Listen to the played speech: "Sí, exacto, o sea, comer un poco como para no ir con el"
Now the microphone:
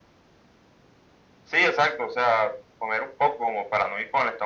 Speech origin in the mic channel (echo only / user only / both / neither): echo only